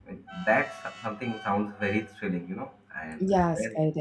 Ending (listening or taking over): taking over